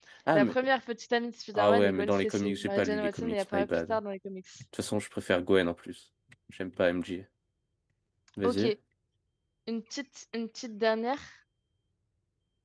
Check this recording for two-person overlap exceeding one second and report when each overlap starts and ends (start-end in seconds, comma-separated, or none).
1.5-4.0